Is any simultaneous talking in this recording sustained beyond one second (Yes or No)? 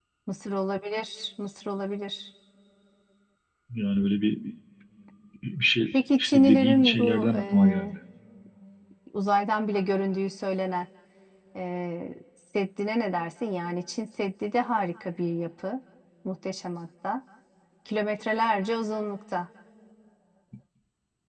Yes